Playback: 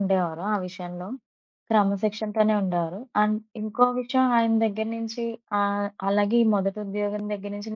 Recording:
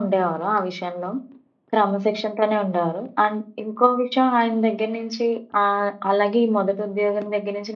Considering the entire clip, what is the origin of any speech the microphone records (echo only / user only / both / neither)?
echo only